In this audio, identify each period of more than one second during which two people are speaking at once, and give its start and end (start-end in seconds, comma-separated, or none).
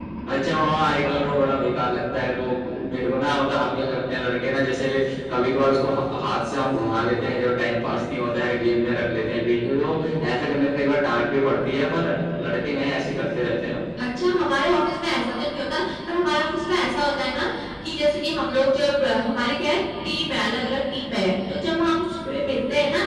none